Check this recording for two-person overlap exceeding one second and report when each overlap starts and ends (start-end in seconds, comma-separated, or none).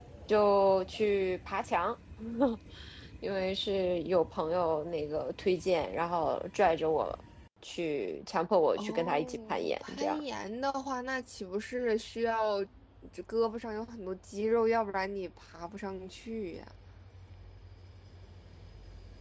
8.8-10.2